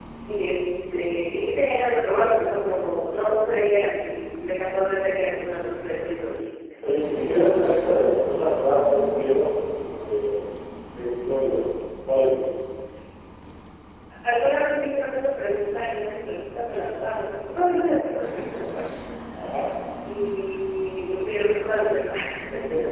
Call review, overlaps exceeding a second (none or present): none